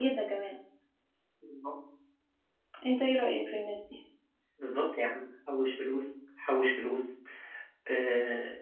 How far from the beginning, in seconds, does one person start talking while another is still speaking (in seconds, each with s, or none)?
none